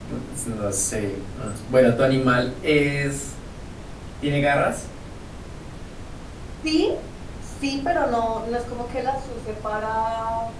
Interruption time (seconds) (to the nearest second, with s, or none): none